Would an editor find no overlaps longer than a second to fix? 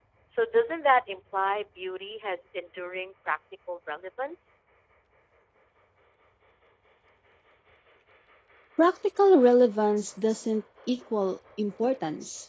Yes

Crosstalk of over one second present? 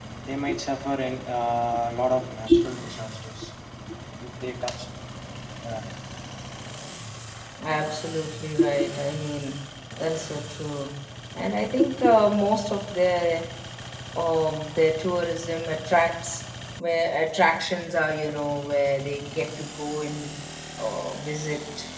No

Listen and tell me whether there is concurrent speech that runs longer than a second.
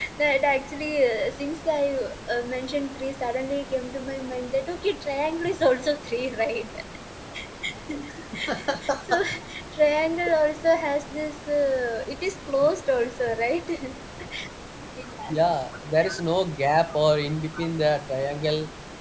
No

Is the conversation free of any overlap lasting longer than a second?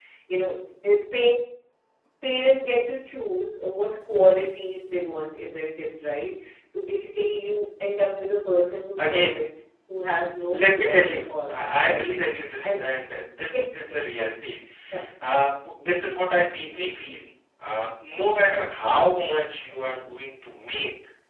No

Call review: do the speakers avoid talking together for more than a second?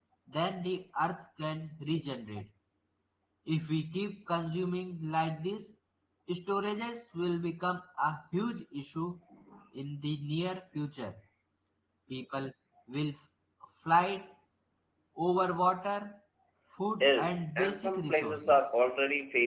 No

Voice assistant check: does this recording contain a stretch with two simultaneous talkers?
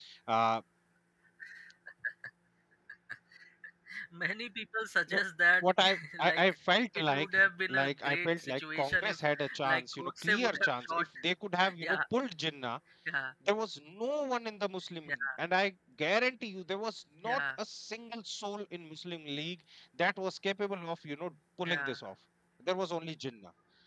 Yes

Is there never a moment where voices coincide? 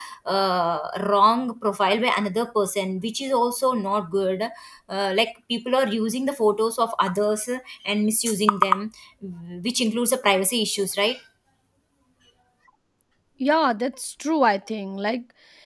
Yes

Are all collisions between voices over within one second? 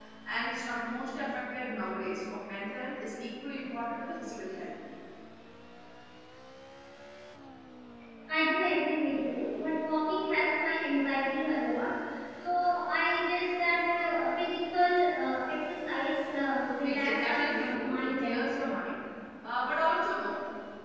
No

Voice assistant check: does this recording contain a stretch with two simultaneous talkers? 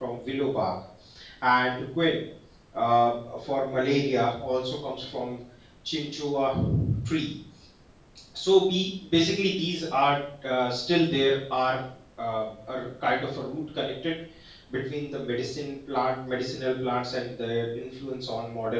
No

